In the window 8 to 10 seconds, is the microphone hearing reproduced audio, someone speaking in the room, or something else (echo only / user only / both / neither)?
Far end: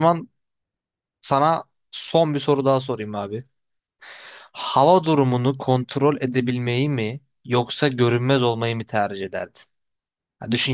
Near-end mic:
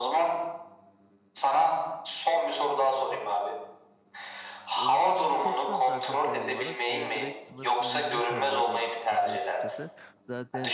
both